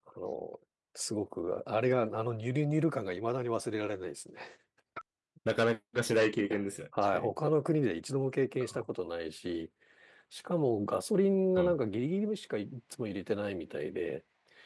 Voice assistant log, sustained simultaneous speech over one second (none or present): none